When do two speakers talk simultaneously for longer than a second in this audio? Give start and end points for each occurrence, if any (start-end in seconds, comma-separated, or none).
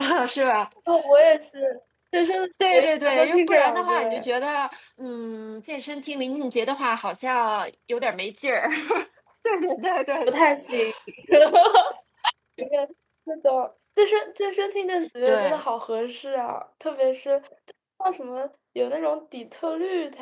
2.7-4.3